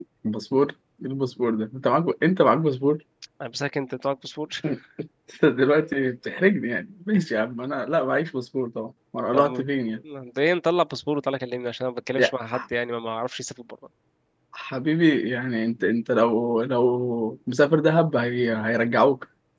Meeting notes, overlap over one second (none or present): none